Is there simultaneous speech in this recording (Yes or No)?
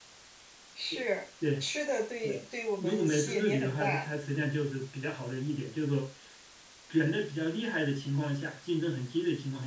Yes